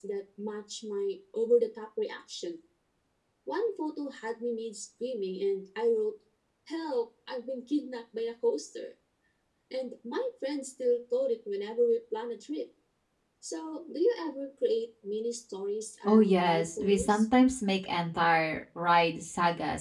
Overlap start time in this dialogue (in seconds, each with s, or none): 16.0 s